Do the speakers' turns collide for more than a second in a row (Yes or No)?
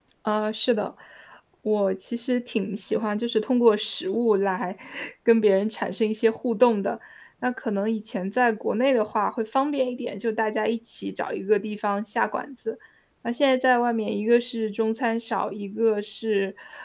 No